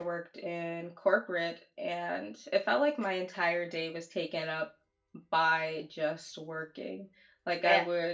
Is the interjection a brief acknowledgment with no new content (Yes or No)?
Yes